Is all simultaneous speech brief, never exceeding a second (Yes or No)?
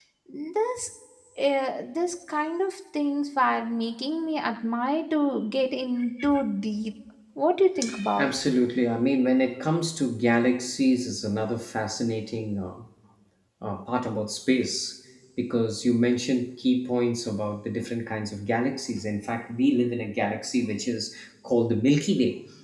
Yes